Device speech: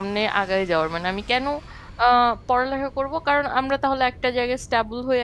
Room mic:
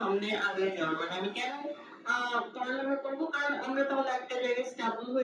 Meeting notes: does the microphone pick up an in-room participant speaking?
No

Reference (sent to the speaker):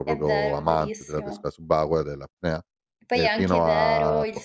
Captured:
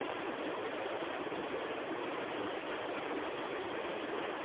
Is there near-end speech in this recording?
No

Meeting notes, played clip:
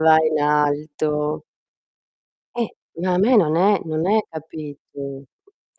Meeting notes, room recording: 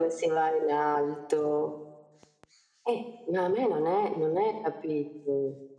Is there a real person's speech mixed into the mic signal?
No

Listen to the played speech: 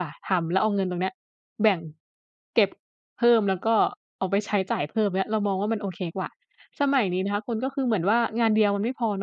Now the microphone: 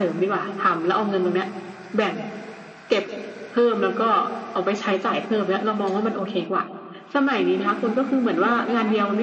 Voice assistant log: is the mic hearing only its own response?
No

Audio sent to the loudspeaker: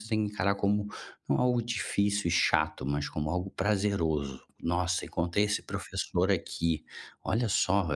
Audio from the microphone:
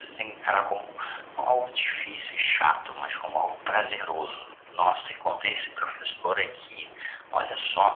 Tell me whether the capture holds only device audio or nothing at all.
Yes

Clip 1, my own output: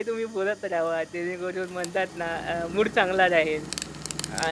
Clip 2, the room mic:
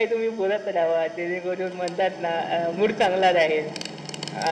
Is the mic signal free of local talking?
Yes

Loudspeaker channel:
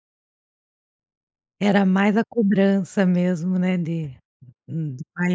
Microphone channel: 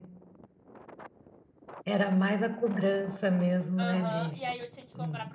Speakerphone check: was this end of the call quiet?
No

